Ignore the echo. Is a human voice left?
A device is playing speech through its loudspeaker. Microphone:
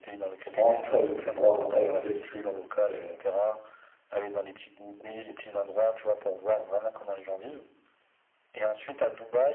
Yes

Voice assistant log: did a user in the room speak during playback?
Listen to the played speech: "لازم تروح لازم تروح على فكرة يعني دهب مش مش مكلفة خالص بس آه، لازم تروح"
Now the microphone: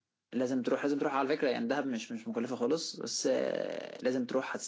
No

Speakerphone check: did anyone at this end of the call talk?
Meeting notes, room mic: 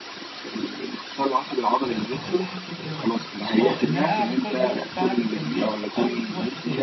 Yes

